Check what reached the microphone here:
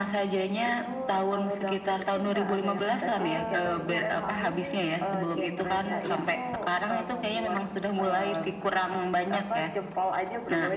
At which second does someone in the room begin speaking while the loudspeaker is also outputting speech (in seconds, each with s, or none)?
3.2 s